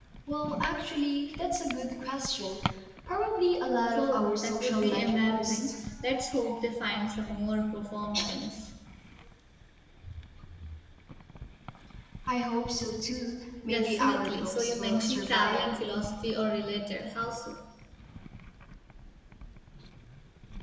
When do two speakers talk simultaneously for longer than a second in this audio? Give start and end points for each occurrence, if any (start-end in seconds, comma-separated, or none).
4.0-5.7, 13.7-15.8